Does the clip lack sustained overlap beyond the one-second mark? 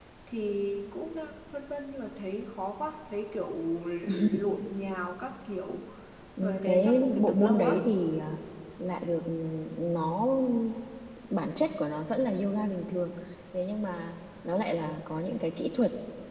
No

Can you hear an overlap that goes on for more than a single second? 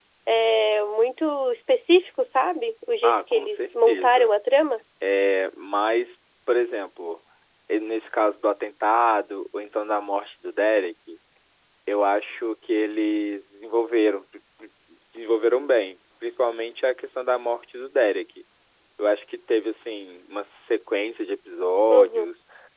Yes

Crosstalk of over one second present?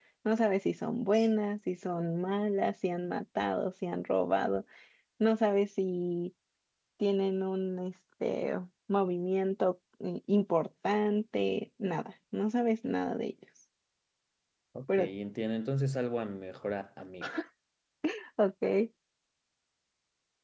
No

